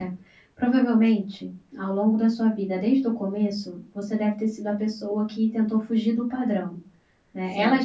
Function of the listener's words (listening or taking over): listening